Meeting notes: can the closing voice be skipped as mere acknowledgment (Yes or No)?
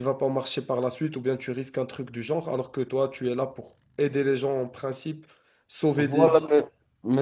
No